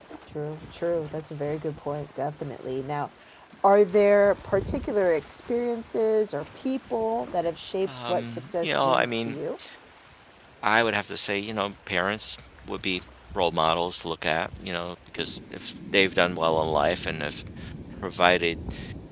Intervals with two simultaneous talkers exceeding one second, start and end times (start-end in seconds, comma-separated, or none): 7.8-9.4